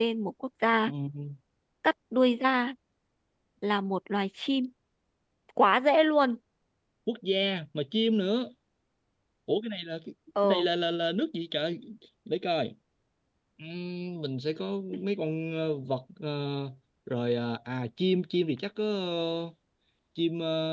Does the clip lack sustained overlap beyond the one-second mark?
Yes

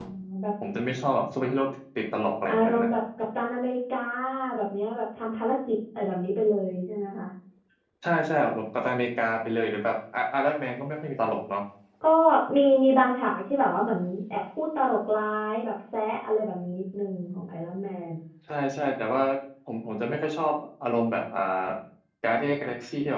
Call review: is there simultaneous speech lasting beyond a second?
No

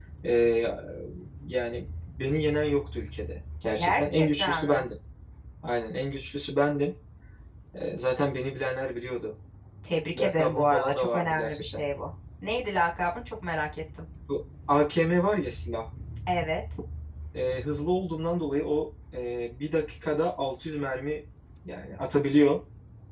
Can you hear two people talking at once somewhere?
Yes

